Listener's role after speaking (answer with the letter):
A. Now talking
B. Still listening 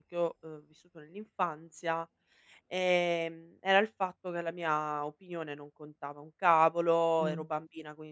B